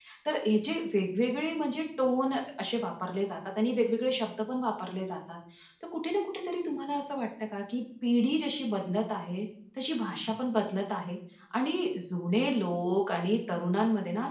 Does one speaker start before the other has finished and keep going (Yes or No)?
No